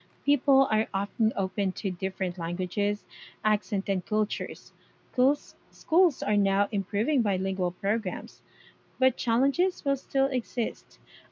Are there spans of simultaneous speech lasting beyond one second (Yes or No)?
No